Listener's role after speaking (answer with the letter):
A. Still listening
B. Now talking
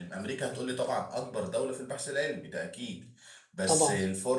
A